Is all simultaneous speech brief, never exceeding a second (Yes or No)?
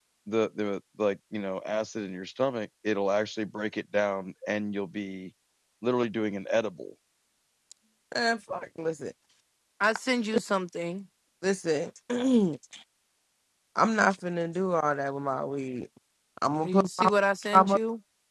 Yes